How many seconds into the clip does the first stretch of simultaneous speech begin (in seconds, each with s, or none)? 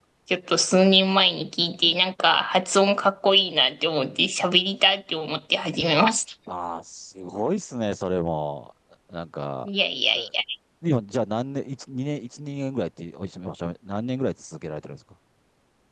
none